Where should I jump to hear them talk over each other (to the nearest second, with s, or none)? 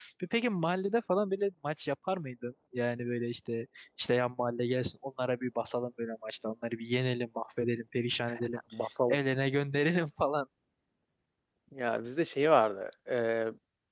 none